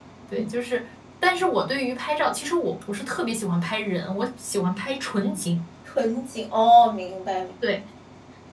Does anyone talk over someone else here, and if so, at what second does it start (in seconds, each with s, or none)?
none